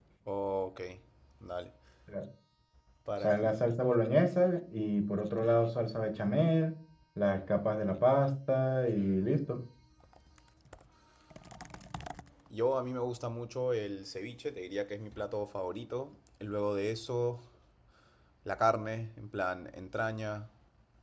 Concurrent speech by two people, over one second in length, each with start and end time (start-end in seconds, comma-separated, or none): none